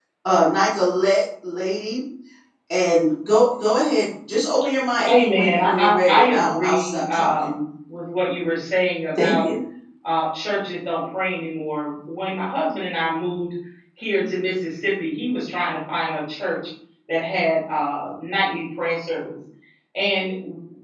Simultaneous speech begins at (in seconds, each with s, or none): 5.3 s